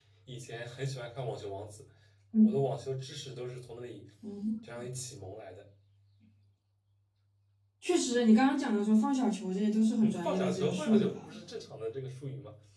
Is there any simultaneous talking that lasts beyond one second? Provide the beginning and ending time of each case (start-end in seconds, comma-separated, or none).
10.0-11.3